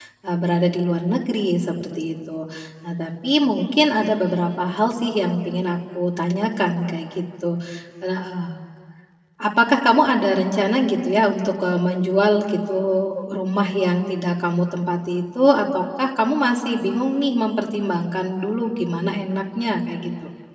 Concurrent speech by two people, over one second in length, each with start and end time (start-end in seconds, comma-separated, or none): none